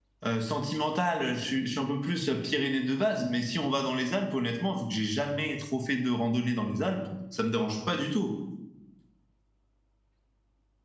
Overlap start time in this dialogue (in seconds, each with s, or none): none